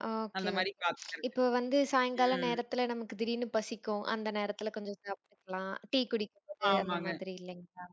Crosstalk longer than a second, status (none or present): none